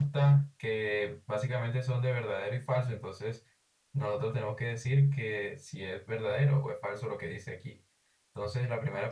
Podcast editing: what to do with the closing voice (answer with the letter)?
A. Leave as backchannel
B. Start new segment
B